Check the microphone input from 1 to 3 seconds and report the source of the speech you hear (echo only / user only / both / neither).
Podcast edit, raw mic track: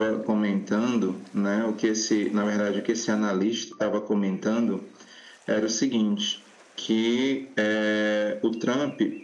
echo only